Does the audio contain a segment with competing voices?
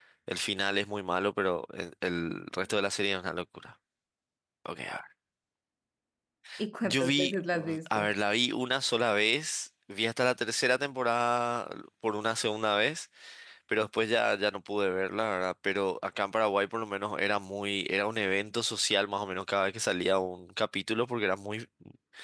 Yes, from 6.8 s

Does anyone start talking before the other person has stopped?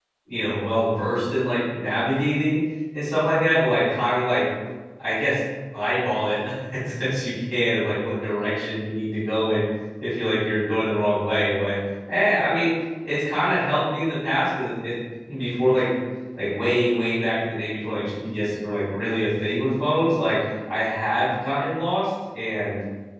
No

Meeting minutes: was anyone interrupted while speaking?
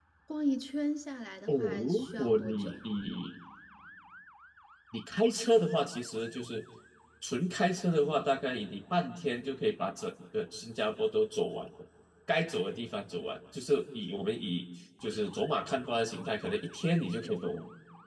Yes, from 1.5 s

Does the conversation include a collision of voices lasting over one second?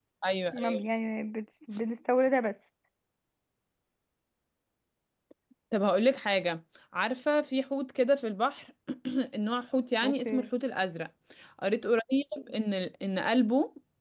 No

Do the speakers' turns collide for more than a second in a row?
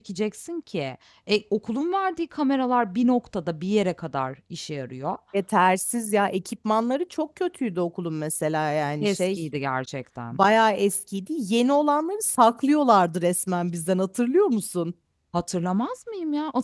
No

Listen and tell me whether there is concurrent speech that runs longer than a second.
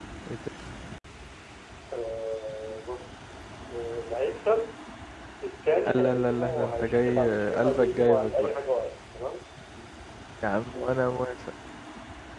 Yes, from 5.9 s

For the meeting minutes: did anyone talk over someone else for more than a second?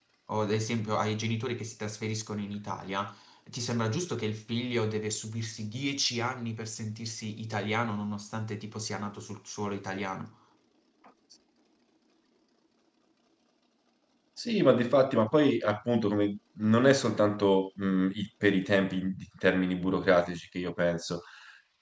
No

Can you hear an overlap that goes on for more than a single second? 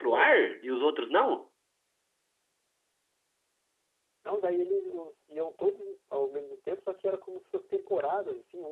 No

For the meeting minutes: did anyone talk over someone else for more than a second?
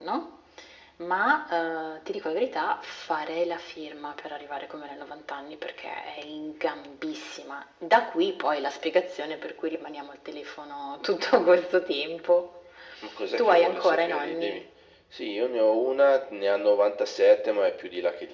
Yes, from 13.4 s

